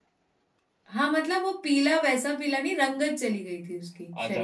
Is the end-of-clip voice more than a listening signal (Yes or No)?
Yes